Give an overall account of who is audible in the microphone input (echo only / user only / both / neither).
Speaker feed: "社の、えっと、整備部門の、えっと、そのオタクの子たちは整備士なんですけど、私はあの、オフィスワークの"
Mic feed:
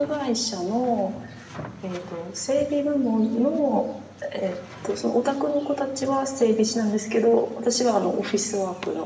echo only